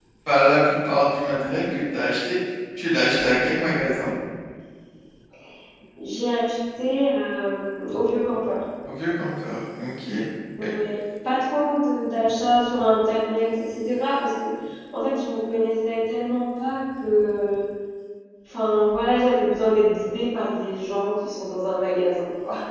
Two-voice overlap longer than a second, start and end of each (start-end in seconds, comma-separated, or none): none